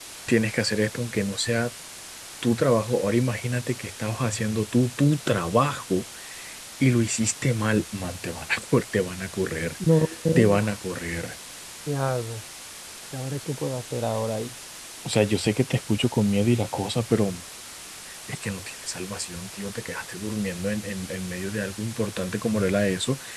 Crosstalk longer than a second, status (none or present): none